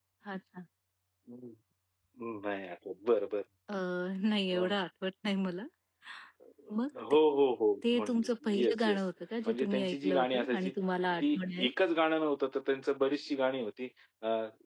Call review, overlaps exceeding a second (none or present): present